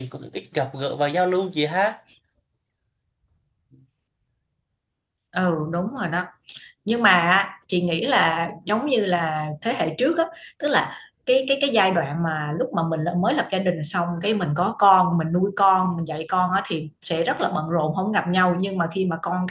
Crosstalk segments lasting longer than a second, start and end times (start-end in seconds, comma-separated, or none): none